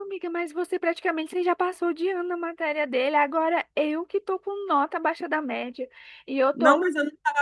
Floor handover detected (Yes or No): Yes